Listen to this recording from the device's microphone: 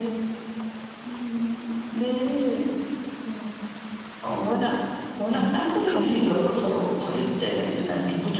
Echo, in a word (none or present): present